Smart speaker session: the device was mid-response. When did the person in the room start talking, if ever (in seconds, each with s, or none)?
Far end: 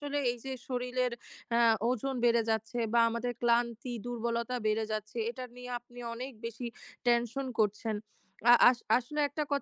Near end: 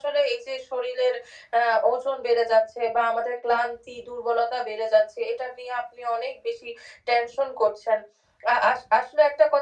none